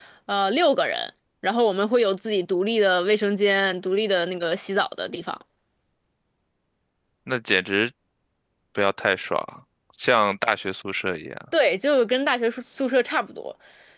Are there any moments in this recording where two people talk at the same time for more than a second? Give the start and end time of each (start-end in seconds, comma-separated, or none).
none